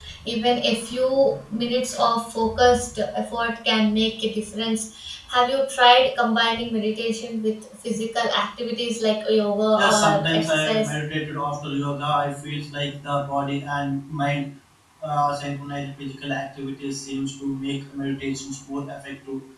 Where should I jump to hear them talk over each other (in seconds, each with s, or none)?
9.8 s